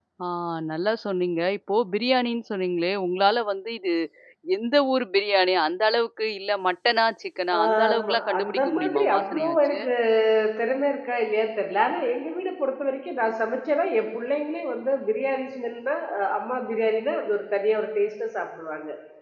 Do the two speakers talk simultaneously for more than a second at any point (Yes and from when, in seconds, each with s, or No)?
Yes, from 7.5 s